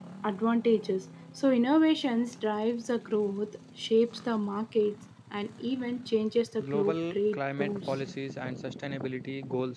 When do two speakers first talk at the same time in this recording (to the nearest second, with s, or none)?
7 s